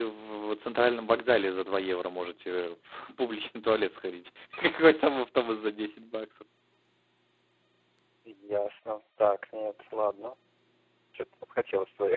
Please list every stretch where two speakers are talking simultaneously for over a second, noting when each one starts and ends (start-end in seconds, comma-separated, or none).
none